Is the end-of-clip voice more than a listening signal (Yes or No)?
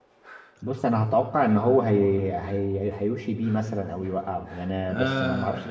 Yes